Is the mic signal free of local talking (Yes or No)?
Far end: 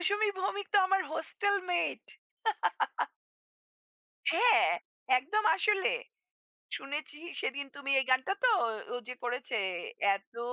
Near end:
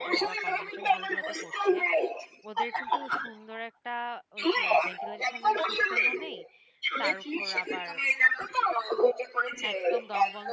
No